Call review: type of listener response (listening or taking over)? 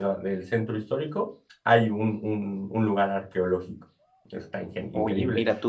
taking over